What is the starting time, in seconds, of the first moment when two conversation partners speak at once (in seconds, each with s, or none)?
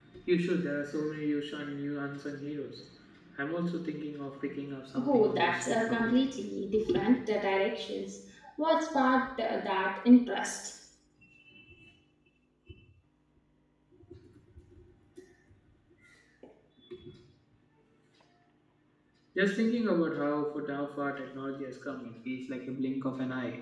5.0 s